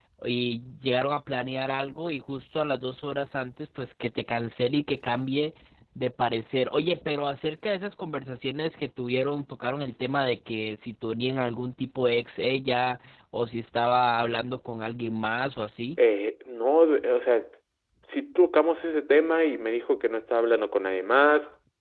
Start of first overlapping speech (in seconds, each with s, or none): none